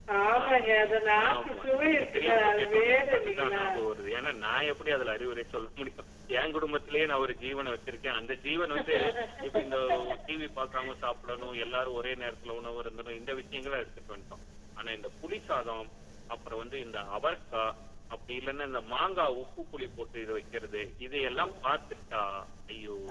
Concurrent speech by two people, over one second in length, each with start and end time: 1.3-3.6

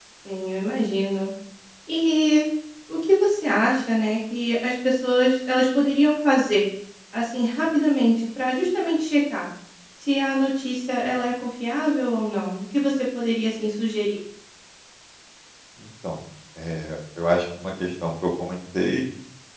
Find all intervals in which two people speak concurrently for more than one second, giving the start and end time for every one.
none

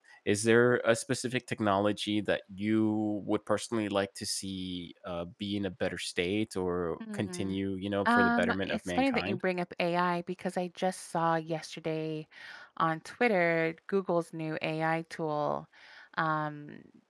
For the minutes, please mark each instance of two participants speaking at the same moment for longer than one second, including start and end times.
8.1-9.4

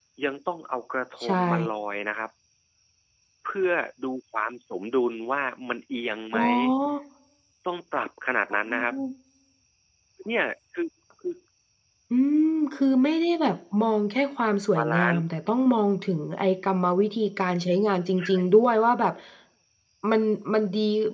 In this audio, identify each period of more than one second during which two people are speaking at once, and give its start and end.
none

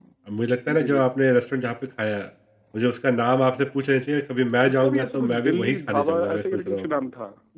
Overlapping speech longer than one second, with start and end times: 4.7-6.8

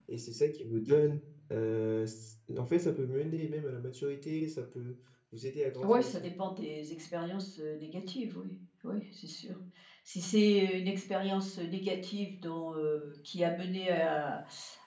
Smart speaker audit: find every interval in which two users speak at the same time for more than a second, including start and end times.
none

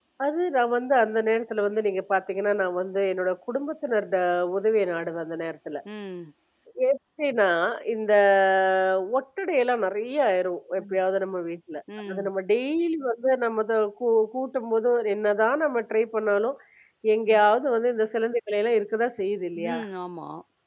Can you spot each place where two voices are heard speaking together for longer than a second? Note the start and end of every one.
none

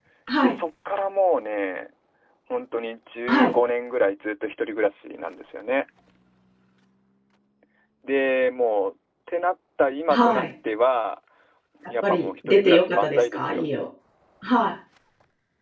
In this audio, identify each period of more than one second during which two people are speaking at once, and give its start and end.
12.0-13.7

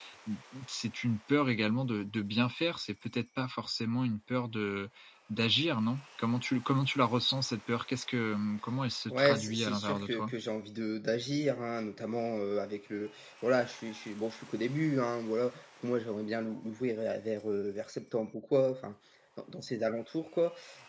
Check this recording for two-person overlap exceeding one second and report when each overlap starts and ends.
9.1-10.3

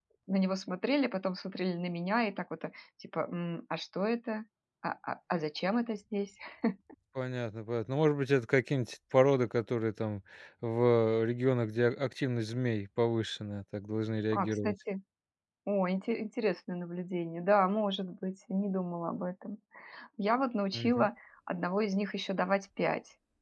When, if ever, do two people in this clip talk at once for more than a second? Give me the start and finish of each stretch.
none

